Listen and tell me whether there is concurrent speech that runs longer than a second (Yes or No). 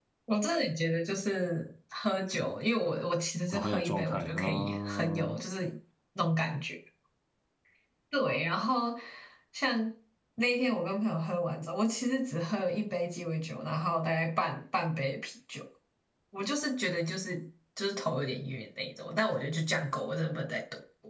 Yes